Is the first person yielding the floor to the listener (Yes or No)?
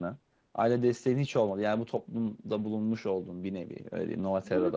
Yes